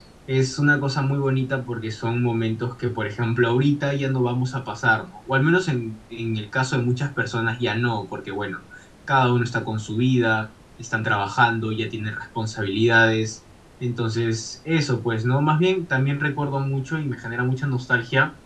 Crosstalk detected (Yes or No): No